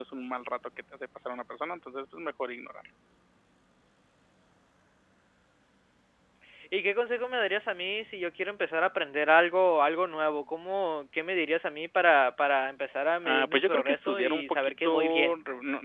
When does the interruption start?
13.2 s

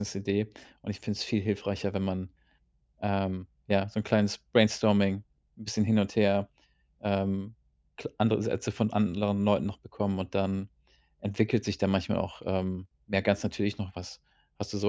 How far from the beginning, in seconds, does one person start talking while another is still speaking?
none

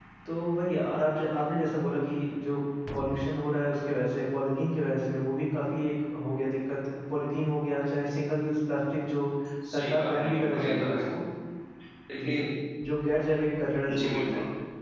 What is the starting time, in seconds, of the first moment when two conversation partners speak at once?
9.7 s

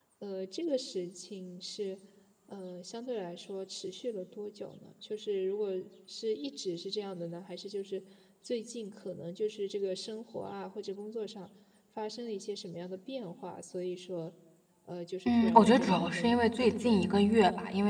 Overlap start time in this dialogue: 15.2 s

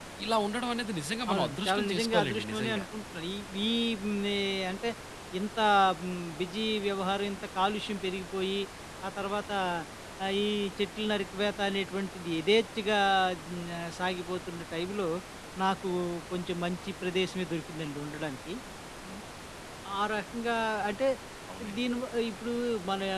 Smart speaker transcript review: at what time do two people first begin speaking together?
1.3 s

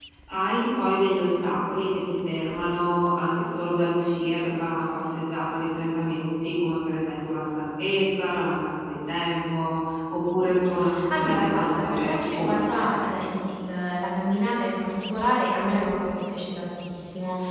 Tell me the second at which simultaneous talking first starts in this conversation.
11.1 s

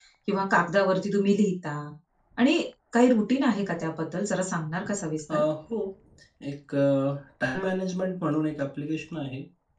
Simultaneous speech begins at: none

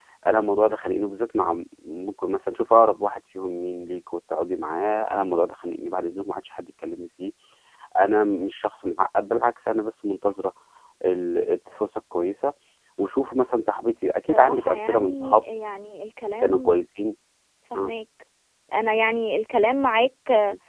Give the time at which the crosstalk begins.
14.1 s

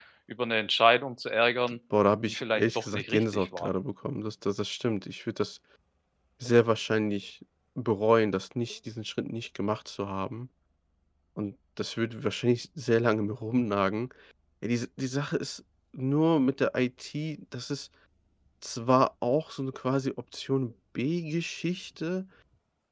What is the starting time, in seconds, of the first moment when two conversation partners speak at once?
2.3 s

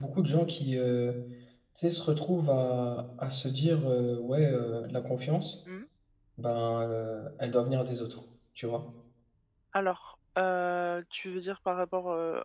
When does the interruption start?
none

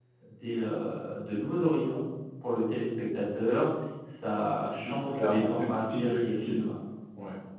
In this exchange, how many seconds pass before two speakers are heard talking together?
4.8 s

